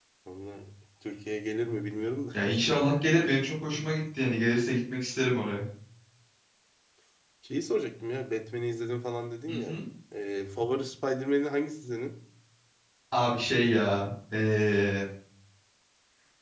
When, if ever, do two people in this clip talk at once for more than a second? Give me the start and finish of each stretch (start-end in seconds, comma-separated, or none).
none